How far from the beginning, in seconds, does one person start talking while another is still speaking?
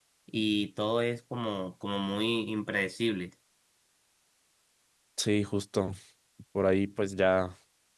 none

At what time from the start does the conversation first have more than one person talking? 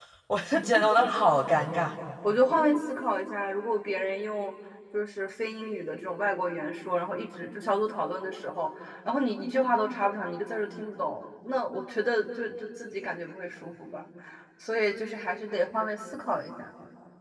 none

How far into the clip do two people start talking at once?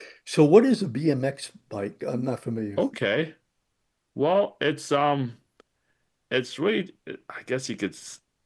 none

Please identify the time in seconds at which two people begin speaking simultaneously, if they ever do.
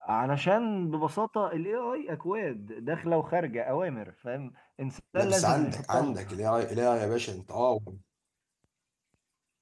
5.1 s

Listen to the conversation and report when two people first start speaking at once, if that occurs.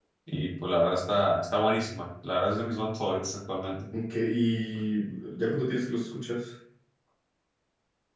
none

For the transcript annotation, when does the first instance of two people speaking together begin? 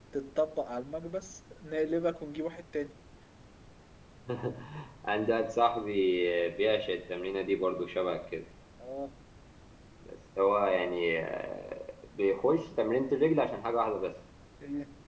none

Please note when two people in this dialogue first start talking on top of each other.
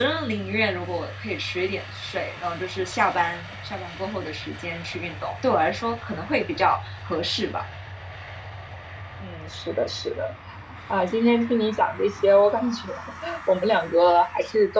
none

